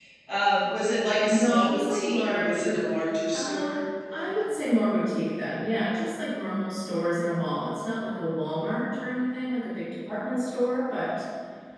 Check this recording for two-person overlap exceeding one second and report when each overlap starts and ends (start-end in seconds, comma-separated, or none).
1.3-2.8